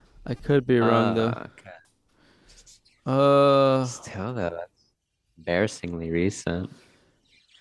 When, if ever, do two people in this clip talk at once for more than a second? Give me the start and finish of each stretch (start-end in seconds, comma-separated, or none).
none